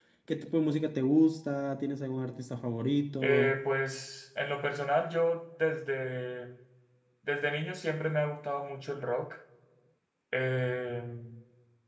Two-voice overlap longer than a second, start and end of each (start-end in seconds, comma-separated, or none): none